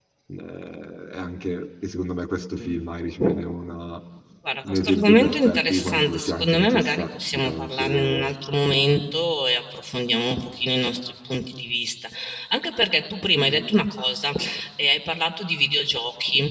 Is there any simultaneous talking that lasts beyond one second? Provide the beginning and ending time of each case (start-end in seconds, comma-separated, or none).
4.6-8.3